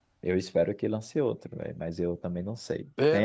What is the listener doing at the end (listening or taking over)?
listening